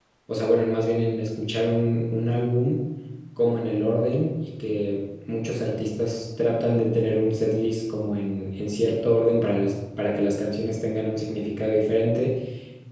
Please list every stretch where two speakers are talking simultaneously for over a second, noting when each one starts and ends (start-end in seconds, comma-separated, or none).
none